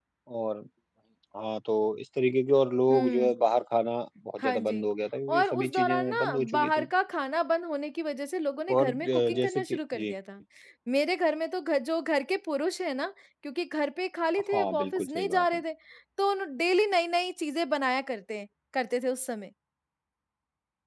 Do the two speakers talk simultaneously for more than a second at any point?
Yes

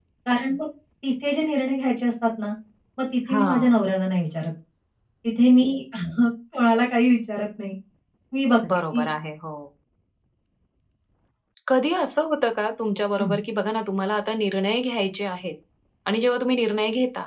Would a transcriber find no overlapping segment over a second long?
Yes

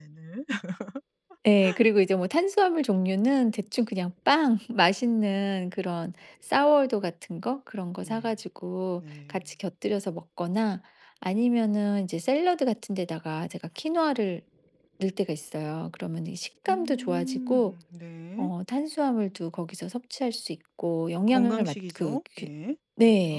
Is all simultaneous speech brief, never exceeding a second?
No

